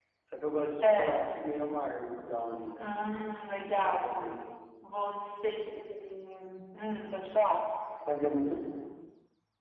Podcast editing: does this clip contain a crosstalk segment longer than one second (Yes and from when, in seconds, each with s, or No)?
No